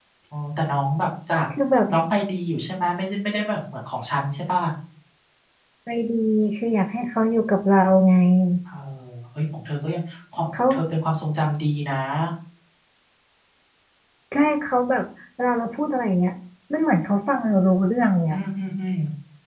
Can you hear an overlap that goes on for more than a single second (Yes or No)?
No